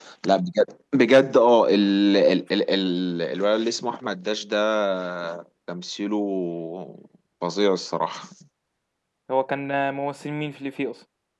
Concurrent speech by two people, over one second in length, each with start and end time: none

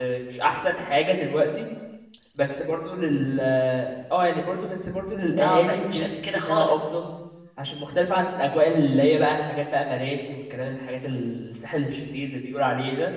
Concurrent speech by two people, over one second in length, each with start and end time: 5.4-7.0

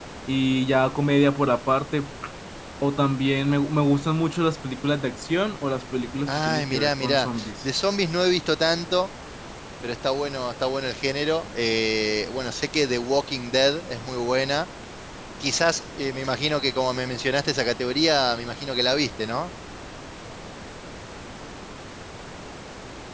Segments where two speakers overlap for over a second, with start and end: 6.3-7.5

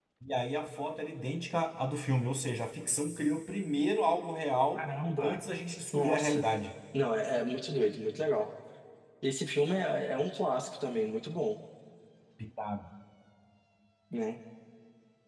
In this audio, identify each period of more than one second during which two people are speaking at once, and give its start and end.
none

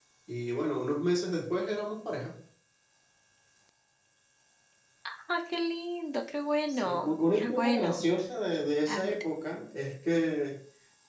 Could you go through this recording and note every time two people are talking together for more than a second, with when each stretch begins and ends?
6.7-8.0

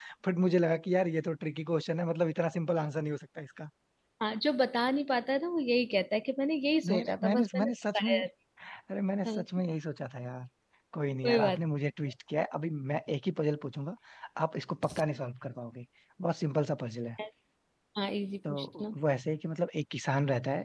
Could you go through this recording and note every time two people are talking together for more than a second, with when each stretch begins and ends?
6.8-8.1

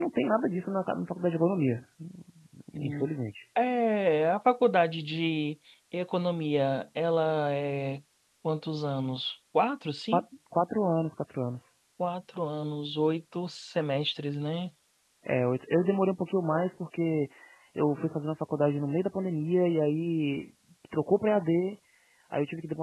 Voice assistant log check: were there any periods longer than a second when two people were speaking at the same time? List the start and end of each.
none

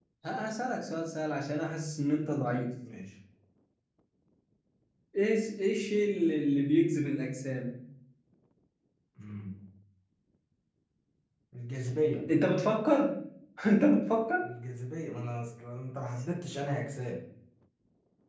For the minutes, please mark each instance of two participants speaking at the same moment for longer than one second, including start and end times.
none

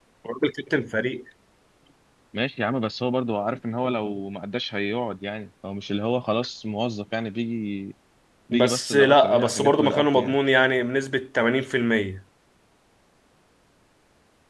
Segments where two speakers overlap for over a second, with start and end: 8.5-10.3

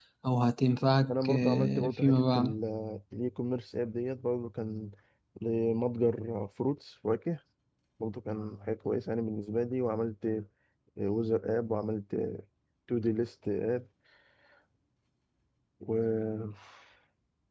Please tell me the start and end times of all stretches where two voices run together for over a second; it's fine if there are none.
1.1-2.5

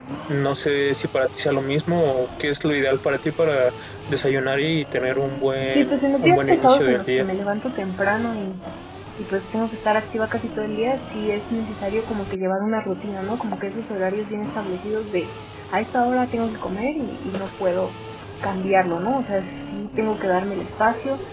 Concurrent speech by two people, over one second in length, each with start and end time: 5.7-7.2

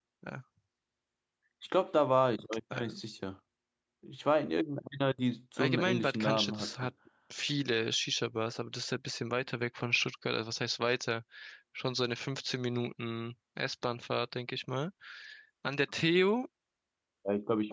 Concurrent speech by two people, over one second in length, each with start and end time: 5.6-6.9

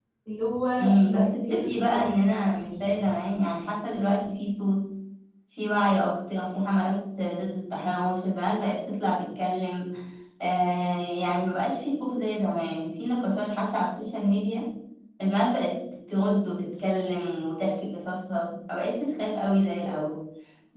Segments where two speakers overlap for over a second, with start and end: 0.8-2.1

